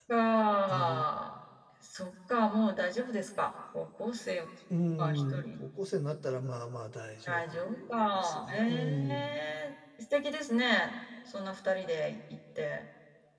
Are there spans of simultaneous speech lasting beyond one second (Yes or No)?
Yes